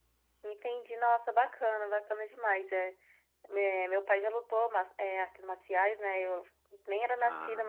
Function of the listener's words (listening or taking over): listening